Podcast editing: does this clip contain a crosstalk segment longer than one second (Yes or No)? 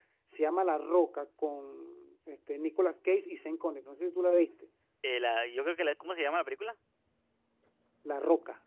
No